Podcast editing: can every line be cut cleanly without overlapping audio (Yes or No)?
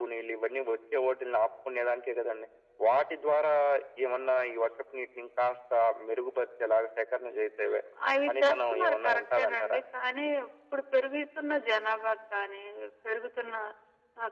No